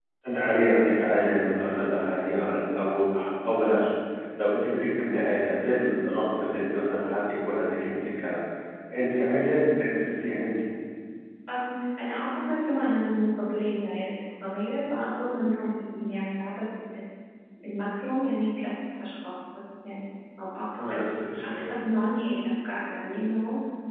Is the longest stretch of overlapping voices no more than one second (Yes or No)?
Yes